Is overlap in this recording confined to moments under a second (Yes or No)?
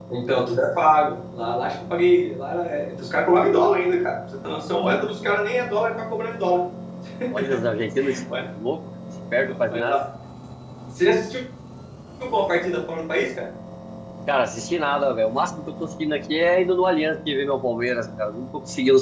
Yes